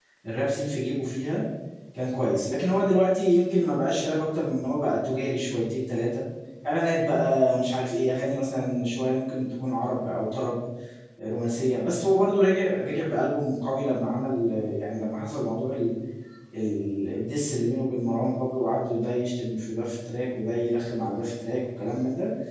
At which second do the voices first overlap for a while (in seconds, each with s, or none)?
none